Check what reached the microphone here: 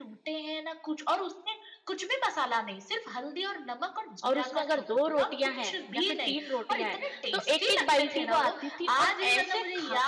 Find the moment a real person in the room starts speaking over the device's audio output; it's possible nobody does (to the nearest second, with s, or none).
4 s